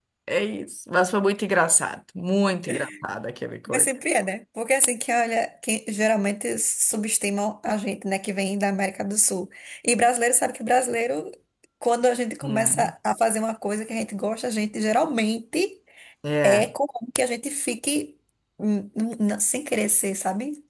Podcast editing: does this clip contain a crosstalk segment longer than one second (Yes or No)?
No